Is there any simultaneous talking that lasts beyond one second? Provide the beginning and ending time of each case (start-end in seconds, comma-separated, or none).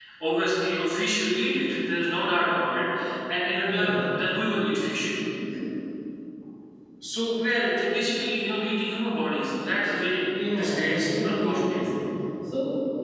10.6-11.9